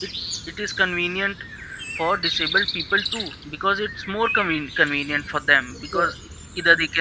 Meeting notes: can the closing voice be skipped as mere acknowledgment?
Yes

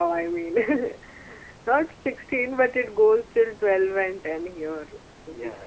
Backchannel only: No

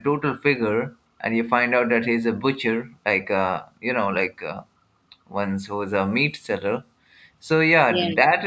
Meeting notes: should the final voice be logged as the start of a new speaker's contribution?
No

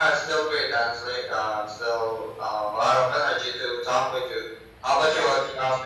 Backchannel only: No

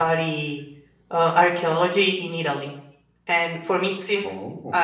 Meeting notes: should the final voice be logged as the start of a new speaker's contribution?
No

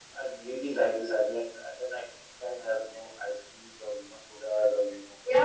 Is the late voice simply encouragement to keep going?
No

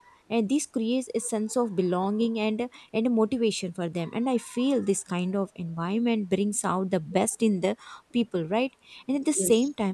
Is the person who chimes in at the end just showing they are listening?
Yes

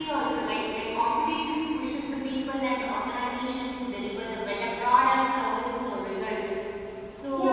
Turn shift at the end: Yes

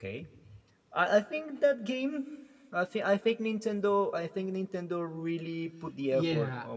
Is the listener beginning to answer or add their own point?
Yes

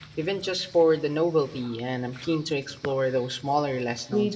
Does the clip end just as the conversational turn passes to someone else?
Yes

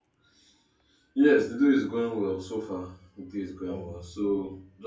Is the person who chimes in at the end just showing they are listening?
Yes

